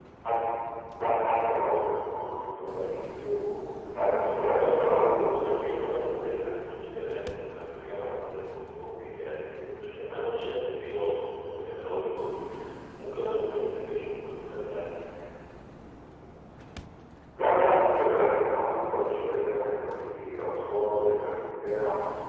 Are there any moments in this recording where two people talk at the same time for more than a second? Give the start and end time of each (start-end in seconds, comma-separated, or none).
4.2-6.2